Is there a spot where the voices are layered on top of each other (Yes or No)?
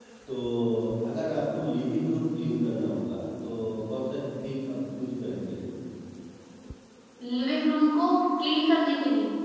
No